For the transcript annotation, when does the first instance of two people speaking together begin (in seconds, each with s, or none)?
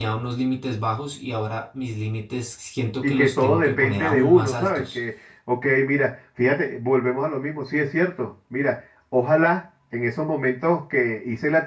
3.0 s